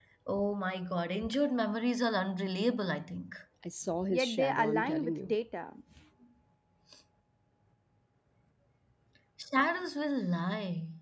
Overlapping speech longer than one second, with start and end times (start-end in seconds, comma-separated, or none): 4.1-5.3